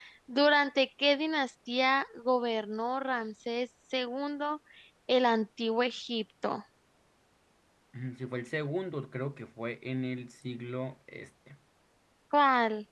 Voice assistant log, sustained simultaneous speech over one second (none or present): none